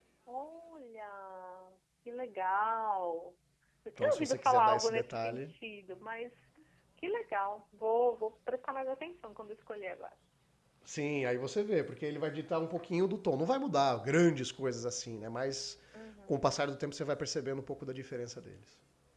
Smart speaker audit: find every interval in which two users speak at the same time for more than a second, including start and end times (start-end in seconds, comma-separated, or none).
4.0-5.5